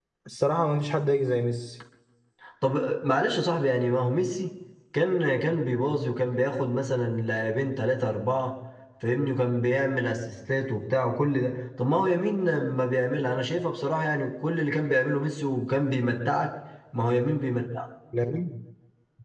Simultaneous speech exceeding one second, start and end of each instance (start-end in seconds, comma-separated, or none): none